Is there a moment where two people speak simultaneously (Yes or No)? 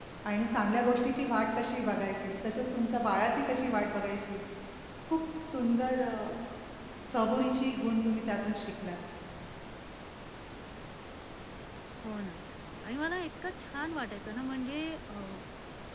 No